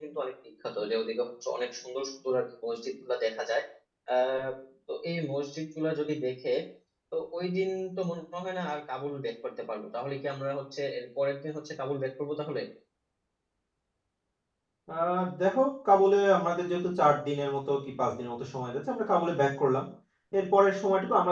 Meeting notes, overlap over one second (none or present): none